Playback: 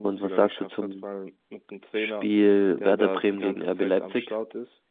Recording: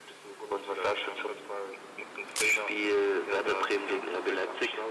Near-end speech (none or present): none